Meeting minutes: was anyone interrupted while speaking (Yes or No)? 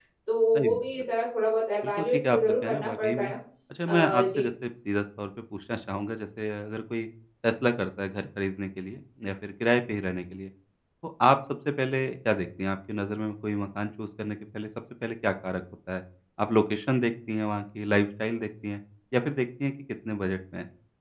Yes